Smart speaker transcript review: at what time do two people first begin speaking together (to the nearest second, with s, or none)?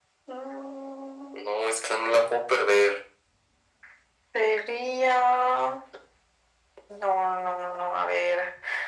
none